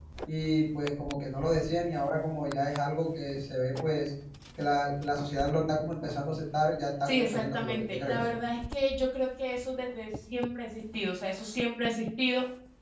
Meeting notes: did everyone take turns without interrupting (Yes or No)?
No